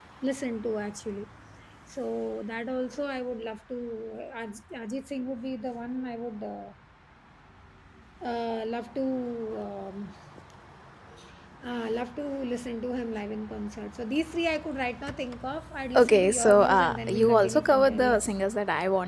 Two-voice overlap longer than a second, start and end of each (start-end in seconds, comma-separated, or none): 16.0-18.3